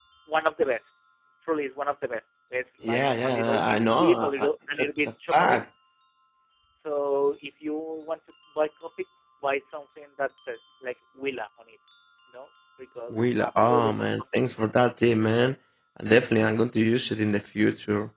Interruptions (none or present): present